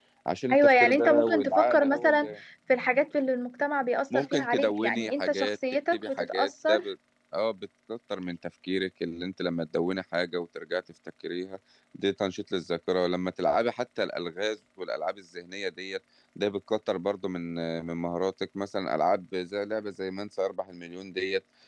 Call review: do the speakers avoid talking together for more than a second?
No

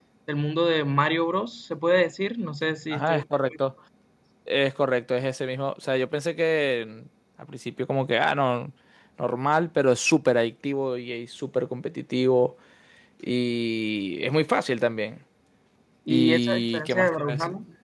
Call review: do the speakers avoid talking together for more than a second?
No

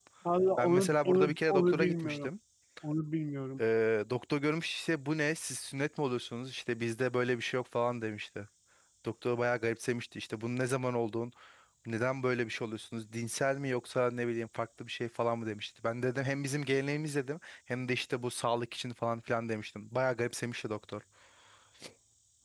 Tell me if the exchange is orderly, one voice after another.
No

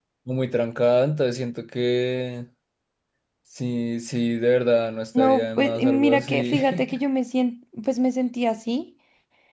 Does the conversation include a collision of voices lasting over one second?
Yes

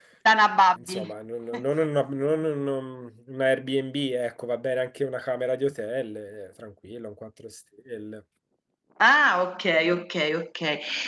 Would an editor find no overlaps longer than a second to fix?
Yes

